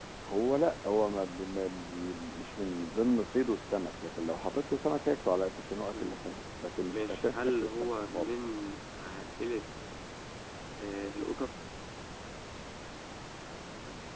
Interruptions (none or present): present